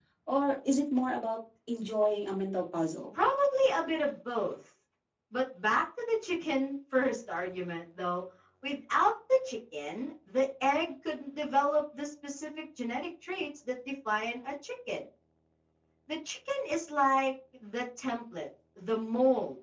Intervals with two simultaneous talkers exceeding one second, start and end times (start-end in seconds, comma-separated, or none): none